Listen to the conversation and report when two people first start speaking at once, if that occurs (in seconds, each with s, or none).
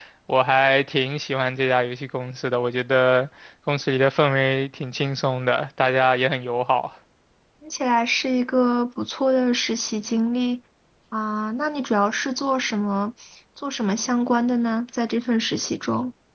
none